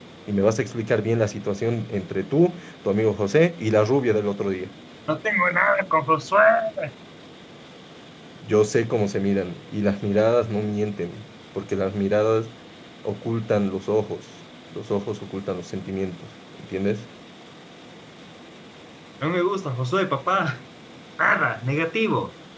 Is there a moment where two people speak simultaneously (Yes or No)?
No